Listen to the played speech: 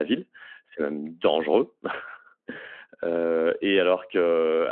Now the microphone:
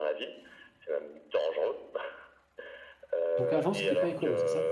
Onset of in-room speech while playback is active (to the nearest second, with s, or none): 3 s